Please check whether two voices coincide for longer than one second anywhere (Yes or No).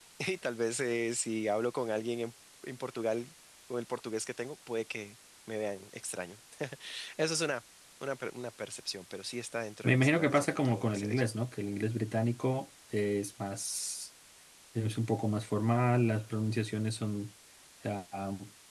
Yes